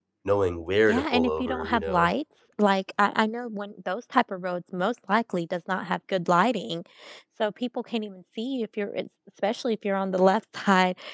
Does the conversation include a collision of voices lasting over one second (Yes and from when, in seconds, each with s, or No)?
Yes, from 0.9 s